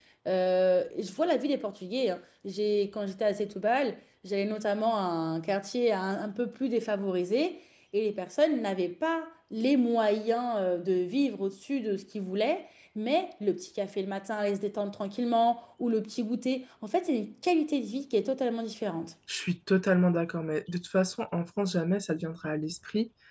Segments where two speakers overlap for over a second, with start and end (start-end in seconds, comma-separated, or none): none